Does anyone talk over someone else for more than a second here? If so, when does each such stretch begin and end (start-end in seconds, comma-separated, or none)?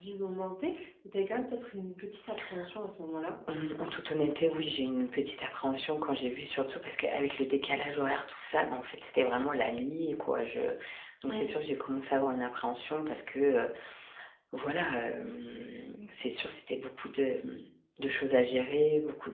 none